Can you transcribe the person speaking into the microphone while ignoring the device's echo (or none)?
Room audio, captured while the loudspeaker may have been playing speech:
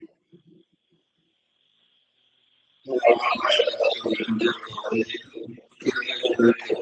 none